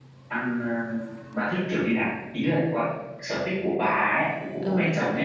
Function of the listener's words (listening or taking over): taking over